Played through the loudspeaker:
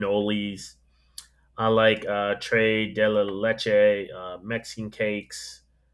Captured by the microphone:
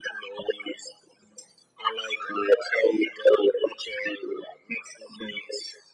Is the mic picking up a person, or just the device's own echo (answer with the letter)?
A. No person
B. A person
A